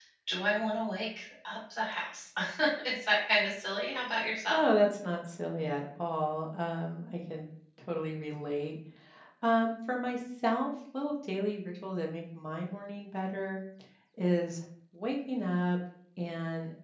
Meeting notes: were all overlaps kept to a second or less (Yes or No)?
Yes